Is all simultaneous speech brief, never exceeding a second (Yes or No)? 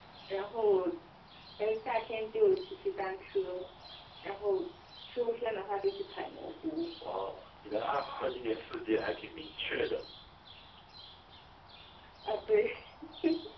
Yes